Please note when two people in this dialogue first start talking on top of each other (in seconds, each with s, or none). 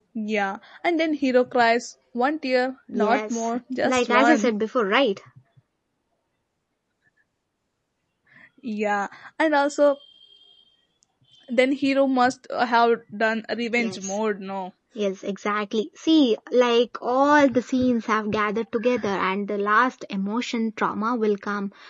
2.9 s